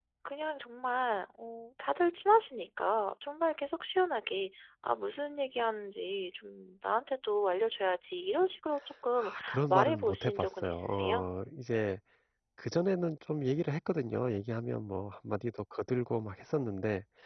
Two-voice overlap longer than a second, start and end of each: 9.2-11.3

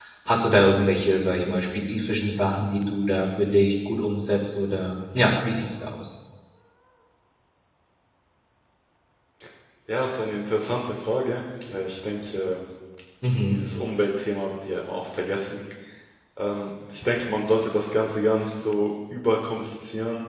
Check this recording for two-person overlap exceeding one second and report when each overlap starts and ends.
none

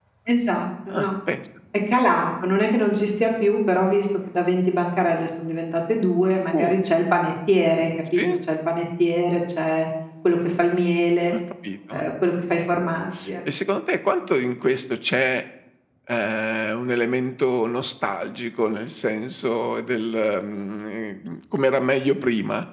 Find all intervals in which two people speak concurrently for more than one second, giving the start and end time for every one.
none

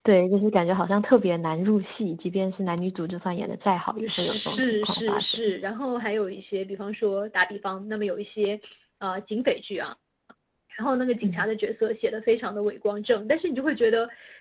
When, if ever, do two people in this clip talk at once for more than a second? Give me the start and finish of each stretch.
4.0-5.4

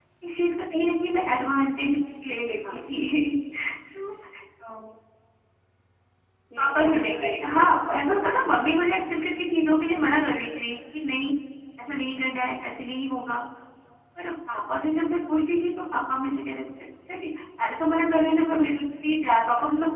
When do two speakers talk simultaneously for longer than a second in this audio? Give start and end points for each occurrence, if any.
6.6-8.7

